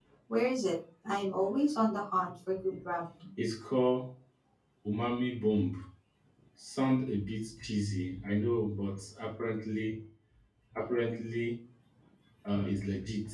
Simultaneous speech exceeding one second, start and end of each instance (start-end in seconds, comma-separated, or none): none